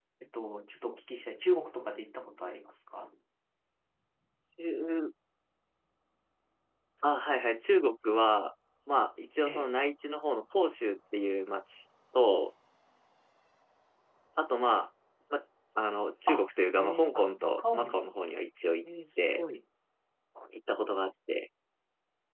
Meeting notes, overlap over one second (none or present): present